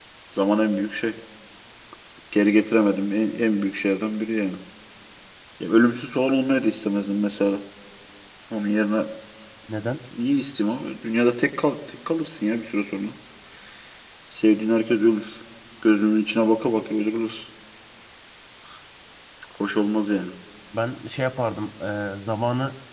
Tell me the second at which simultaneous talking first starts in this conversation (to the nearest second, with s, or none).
none